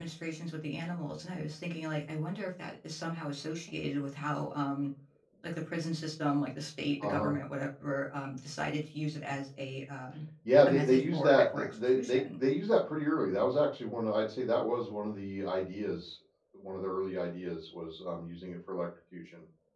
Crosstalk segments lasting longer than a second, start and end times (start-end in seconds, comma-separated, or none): 10.7-12.2